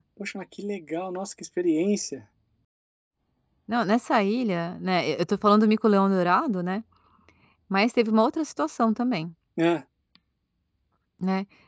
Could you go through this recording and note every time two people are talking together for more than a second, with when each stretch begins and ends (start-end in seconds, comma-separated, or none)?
none